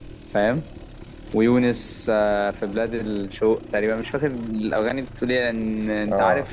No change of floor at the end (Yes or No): Yes